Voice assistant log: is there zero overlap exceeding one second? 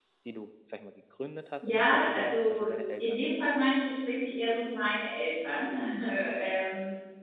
No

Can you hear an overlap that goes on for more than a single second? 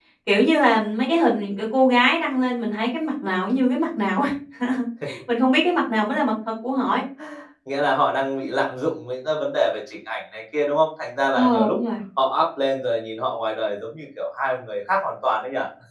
No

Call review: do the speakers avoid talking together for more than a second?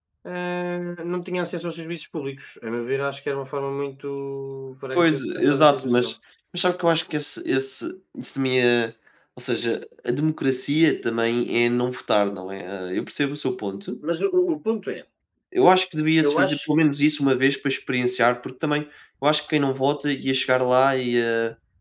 No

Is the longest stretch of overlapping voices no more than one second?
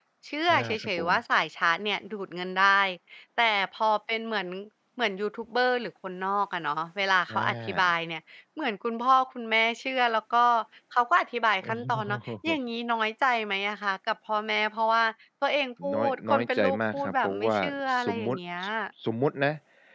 No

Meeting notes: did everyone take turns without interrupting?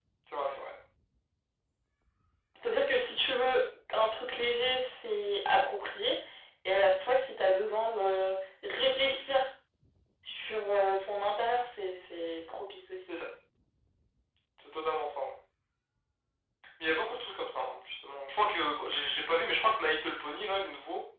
Yes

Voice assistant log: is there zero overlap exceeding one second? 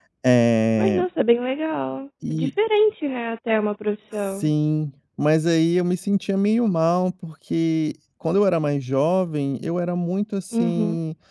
Yes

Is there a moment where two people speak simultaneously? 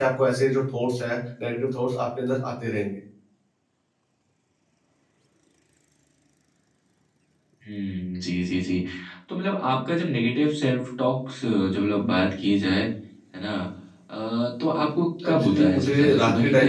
Yes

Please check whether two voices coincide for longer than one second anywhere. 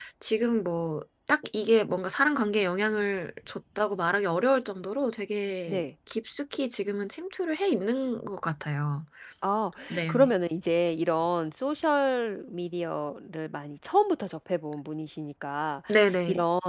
No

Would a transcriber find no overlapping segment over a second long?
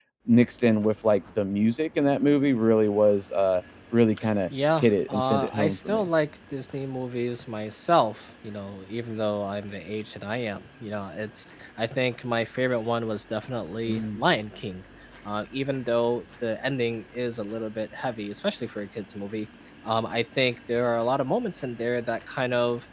No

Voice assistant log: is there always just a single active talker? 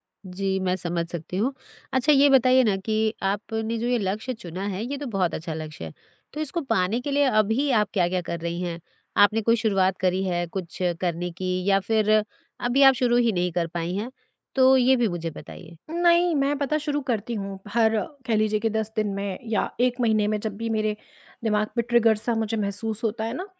Yes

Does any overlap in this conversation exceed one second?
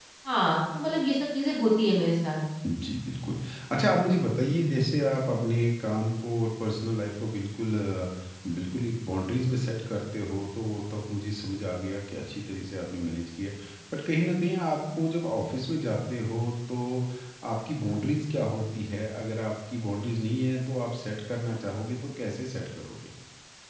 No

